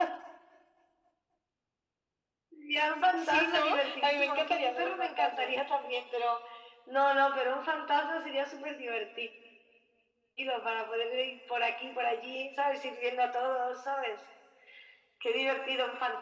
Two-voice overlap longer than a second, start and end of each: 3.2-5.6

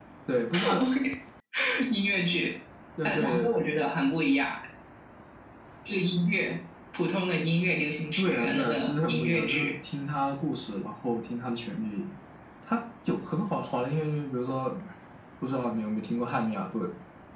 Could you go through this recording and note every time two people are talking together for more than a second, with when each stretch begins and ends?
8.2-9.8

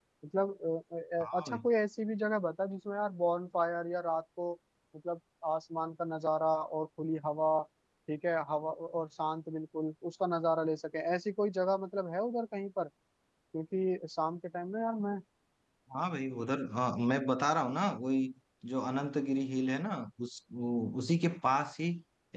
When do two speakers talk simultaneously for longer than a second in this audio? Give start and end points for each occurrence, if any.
none

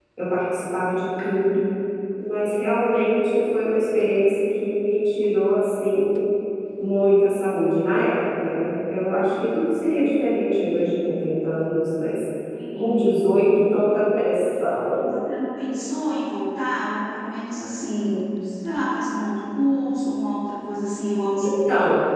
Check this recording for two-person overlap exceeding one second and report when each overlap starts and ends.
none

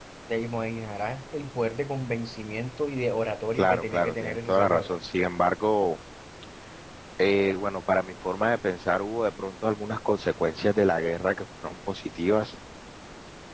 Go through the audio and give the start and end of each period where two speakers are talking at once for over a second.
3.6-4.9

